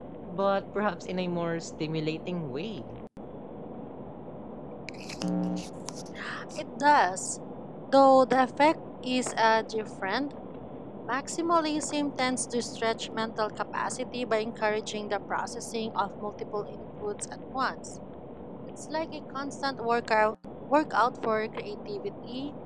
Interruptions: none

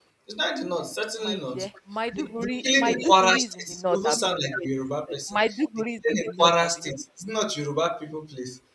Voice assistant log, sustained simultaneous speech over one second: present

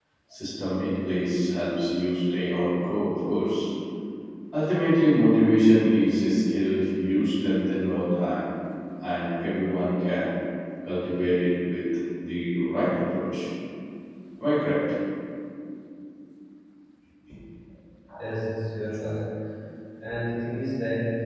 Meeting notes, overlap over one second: none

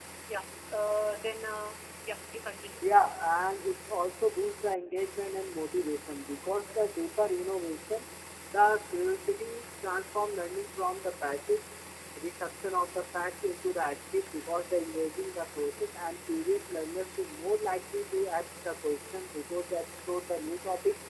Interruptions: none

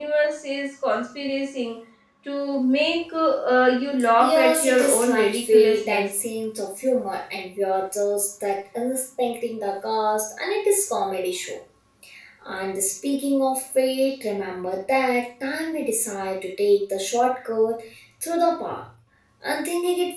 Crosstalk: present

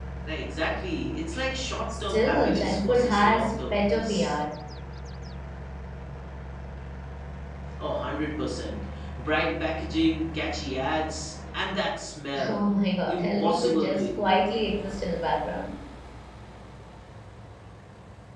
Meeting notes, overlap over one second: present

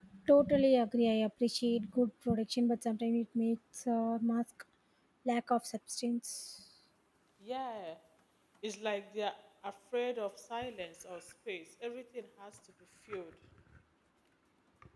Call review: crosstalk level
none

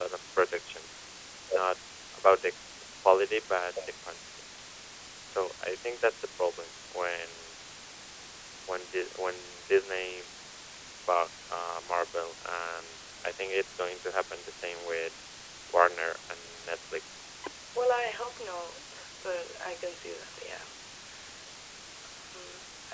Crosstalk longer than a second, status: none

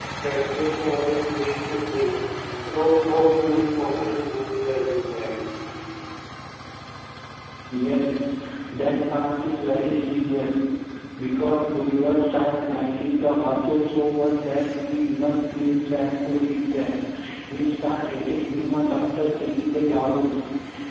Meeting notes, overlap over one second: none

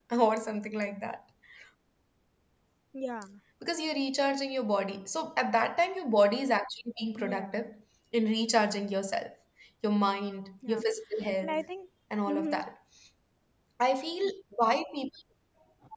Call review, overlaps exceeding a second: none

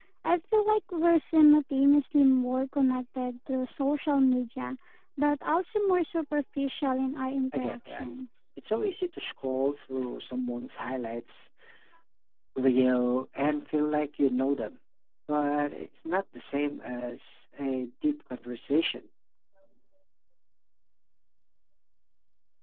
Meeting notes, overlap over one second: none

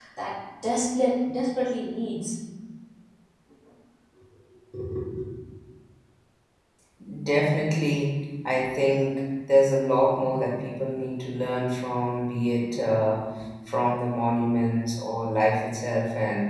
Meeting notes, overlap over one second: none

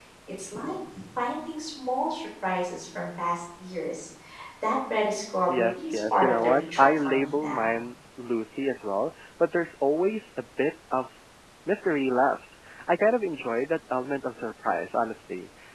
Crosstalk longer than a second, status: present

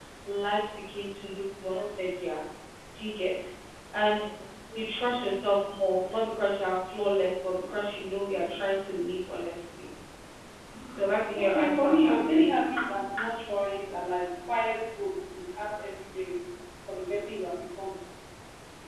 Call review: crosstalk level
present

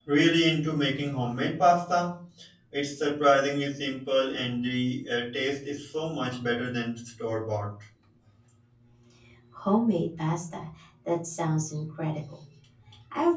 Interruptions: none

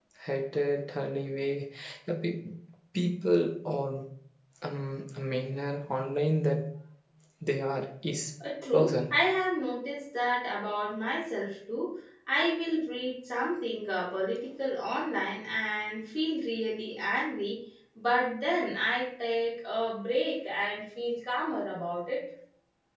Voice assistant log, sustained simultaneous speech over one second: none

